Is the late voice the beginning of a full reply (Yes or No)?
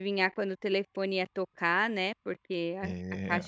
No